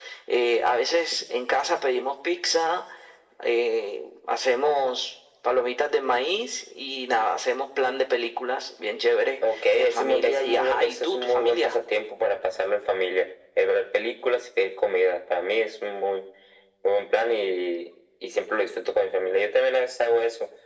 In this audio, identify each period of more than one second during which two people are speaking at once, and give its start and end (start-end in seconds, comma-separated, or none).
9.5-11.8